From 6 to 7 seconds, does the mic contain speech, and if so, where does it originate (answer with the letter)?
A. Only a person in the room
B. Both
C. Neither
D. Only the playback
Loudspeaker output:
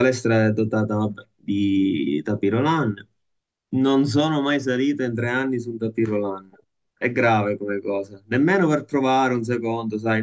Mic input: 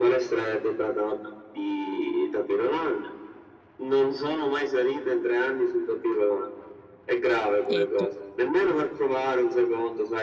D